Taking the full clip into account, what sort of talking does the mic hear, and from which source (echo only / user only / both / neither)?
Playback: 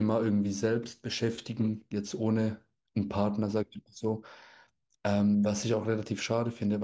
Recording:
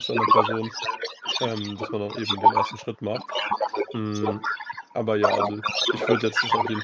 both